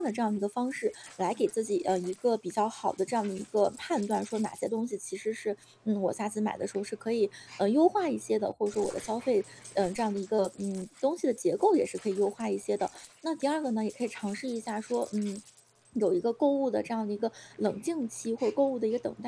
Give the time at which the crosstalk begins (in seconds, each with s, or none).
none